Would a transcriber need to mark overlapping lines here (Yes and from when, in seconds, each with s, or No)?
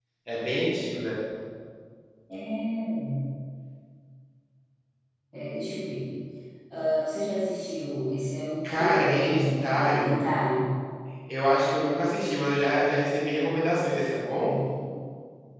Yes, from 8.6 s